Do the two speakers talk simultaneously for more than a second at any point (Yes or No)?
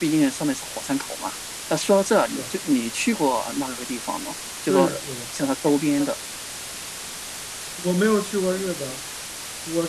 No